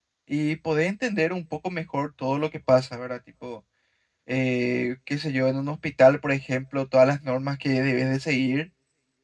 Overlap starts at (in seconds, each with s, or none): none